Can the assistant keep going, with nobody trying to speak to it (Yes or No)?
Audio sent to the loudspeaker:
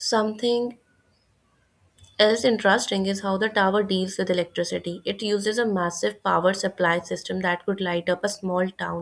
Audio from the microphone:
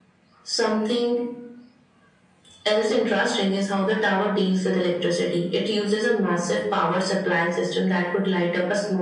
Yes